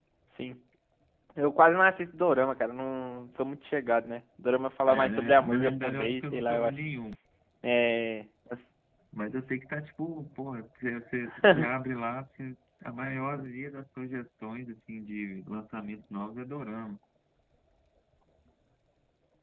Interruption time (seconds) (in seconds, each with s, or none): 4.8 s